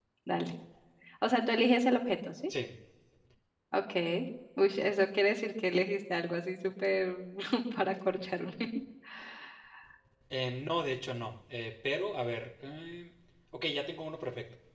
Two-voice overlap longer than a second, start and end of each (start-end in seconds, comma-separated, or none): none